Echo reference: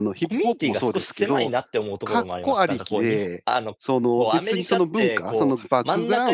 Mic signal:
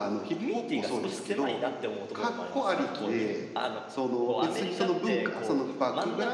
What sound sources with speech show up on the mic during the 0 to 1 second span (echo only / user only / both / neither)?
echo only